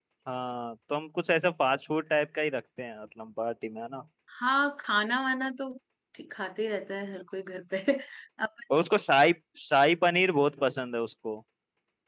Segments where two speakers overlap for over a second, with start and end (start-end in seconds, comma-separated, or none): none